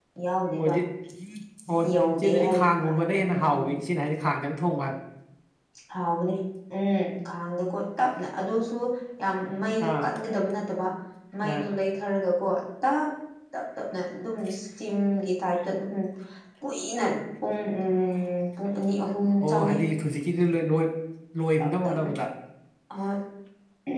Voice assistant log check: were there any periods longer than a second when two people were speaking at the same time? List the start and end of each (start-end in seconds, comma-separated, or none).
2.1-3.6